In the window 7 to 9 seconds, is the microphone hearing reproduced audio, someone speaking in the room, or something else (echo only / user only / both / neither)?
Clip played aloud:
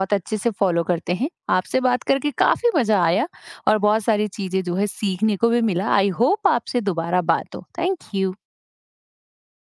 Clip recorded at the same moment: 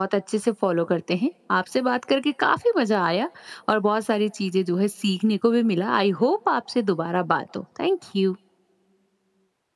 echo only